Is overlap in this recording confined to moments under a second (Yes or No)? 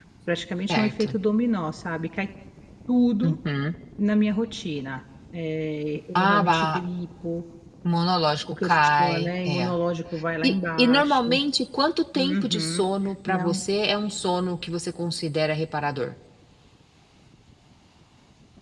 No